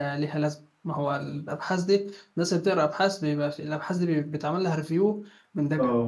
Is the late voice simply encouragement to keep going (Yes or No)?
Yes